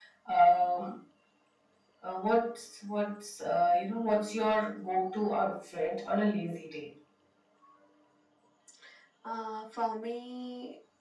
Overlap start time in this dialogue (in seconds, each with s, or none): none